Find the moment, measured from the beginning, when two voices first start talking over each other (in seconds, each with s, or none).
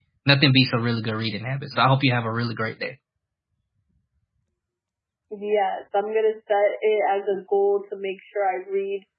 none